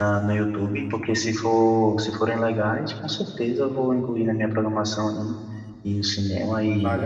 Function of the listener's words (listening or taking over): taking over